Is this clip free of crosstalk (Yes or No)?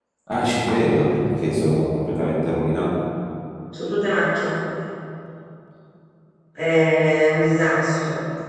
Yes